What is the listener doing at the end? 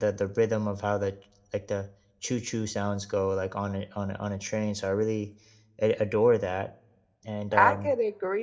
taking over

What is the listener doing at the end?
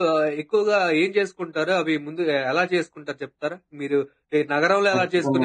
listening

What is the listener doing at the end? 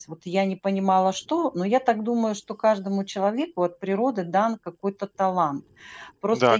taking over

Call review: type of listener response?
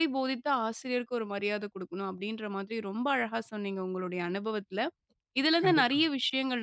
listening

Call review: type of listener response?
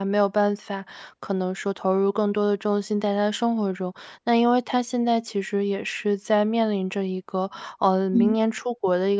listening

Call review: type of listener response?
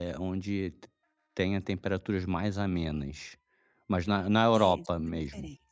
taking over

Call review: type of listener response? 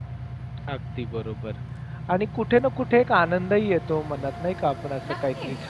listening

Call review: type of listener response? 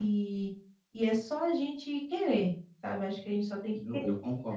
taking over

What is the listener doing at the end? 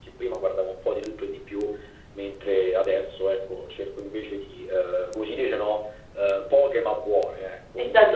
taking over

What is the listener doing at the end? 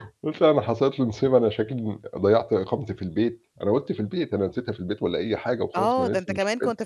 taking over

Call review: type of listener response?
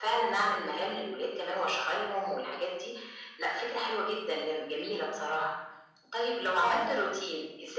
listening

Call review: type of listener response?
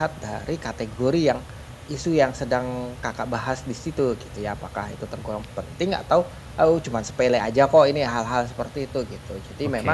listening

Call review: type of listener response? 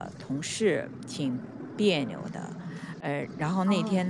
listening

